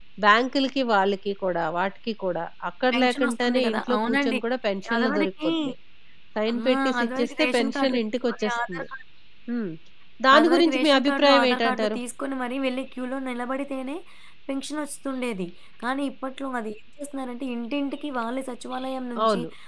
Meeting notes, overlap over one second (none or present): present